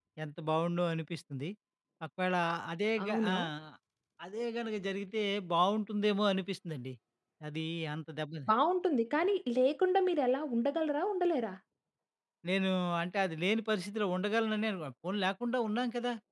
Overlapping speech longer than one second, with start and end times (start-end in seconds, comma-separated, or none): none